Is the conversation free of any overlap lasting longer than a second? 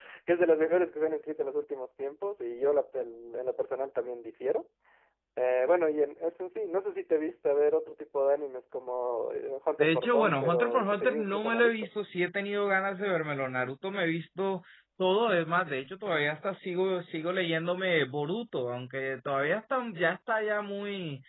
No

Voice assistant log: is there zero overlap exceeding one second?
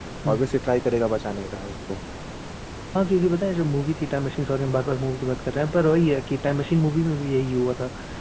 Yes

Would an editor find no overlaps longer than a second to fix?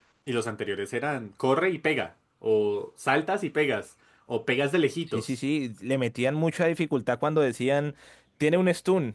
Yes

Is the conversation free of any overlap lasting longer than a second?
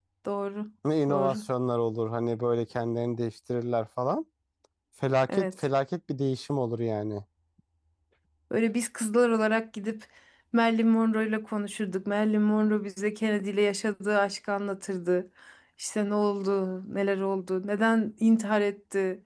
Yes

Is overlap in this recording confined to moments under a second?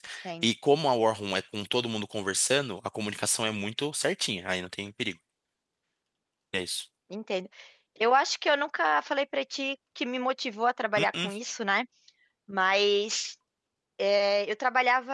Yes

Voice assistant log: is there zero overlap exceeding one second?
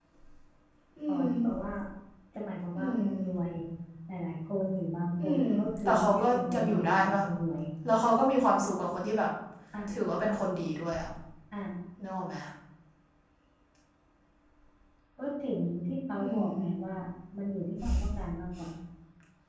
No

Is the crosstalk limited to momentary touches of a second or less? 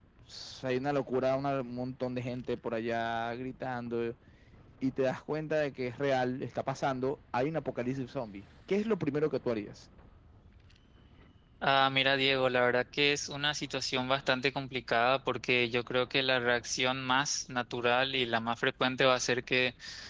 Yes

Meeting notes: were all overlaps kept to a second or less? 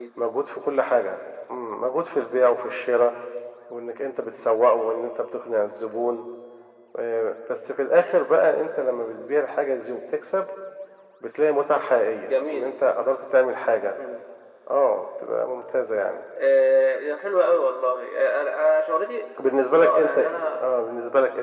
Yes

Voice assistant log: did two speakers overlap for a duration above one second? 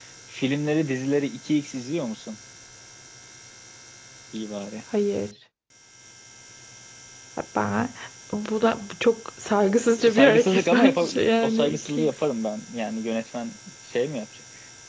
Yes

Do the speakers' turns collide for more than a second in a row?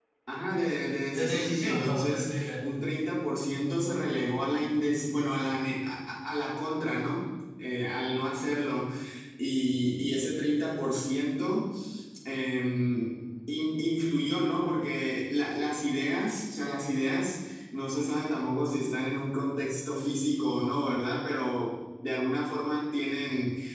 Yes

